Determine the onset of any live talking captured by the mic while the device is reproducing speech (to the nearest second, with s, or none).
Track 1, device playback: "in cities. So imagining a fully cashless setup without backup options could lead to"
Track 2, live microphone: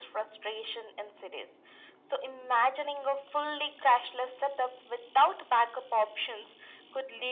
none